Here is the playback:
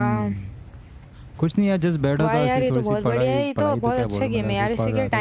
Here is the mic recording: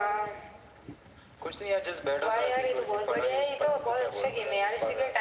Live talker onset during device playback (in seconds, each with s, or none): none